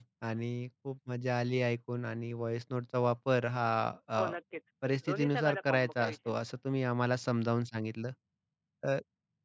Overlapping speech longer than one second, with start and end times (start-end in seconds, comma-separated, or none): 5.1-6.3